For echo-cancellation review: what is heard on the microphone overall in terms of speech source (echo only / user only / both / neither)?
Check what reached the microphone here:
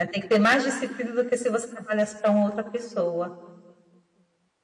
user only